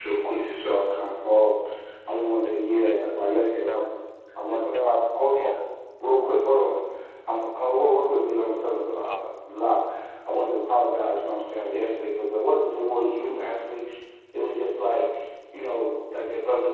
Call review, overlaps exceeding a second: present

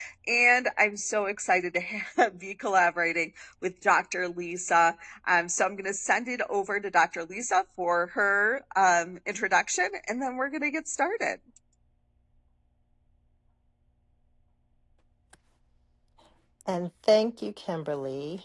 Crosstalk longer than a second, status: none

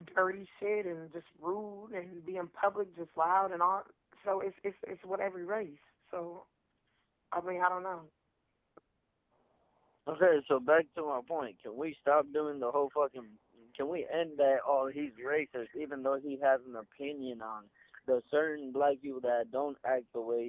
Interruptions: none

